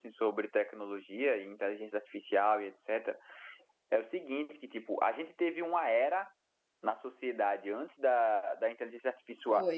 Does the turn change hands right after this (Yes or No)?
No